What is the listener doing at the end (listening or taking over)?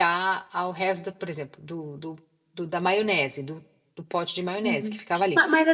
taking over